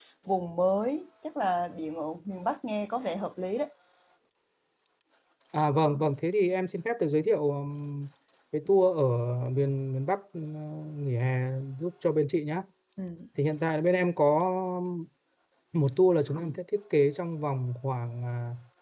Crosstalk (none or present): none